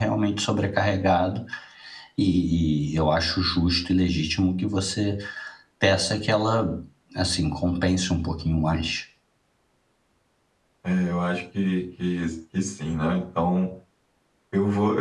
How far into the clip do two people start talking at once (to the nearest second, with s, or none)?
none